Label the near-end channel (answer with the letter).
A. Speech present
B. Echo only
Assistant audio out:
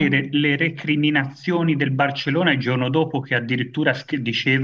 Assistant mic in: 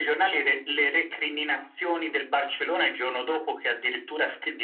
B